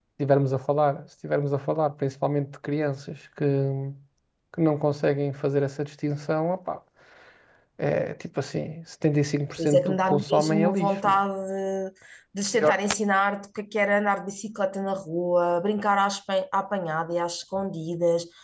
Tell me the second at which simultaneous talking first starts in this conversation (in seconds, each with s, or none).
9.6 s